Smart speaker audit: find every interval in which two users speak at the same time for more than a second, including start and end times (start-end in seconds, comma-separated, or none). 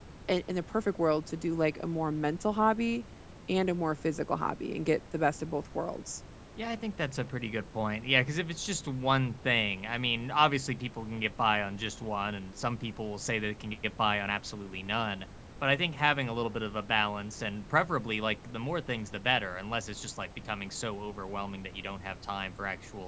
none